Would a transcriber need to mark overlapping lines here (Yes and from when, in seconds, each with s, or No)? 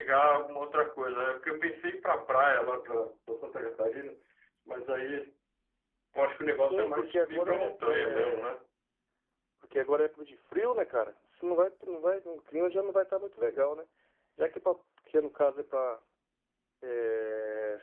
Yes, from 6.7 s